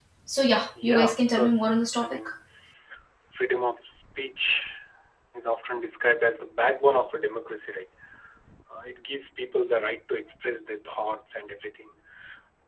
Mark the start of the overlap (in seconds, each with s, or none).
0.8 s